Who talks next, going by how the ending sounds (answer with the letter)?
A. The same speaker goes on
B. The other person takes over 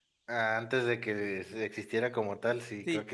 B